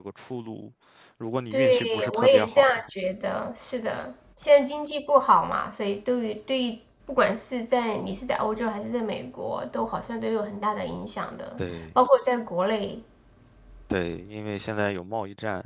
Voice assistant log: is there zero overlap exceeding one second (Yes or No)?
No